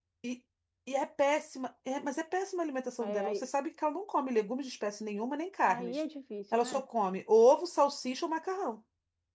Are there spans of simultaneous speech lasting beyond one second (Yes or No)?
No